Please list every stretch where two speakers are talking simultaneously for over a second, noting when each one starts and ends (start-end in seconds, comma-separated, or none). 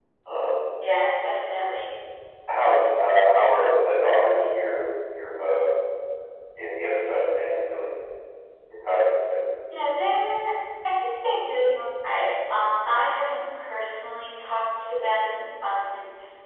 none